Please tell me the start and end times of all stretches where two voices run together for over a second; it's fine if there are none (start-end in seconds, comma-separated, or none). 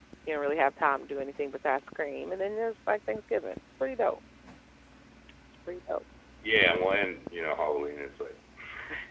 none